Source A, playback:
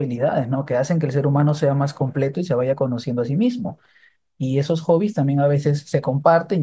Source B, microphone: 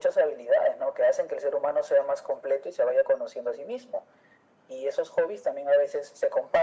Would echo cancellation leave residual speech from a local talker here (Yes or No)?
No